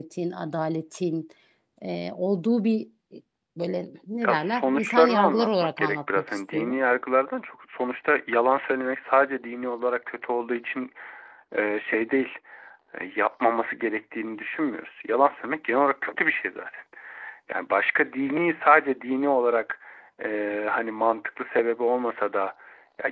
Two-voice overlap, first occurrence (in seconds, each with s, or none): 4.3 s